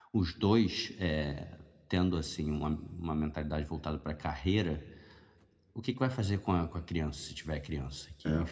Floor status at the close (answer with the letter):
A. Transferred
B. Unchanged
B